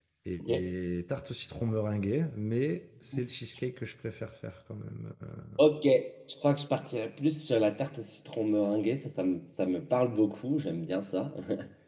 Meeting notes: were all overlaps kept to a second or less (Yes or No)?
Yes